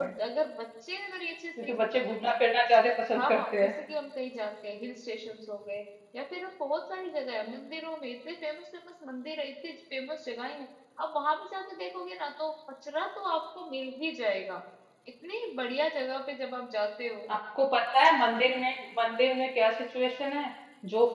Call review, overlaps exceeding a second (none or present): none